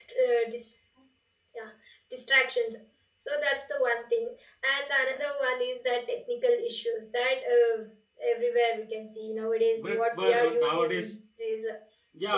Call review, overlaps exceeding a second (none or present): present